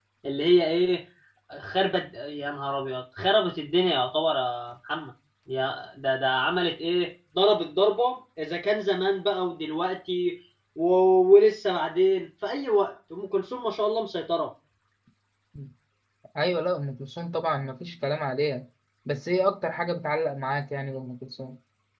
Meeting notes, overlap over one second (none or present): none